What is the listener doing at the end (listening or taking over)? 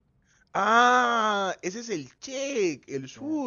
listening